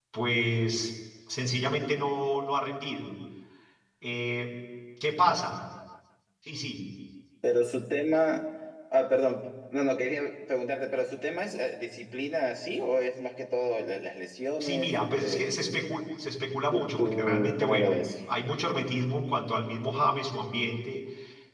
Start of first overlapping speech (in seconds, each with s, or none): 14.6 s